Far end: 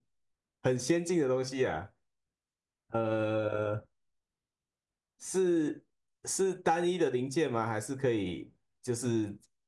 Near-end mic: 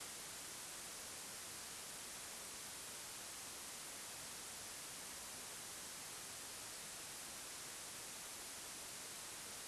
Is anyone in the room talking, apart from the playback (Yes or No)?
No